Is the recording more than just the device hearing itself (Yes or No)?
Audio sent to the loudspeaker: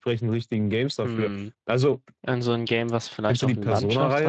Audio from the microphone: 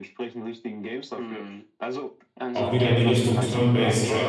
Yes